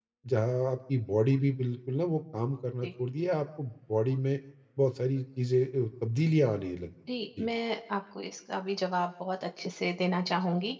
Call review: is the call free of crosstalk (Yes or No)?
Yes